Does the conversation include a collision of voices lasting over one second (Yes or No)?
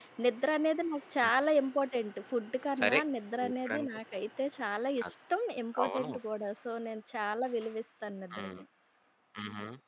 No